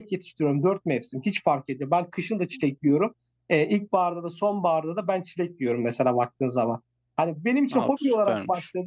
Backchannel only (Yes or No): Yes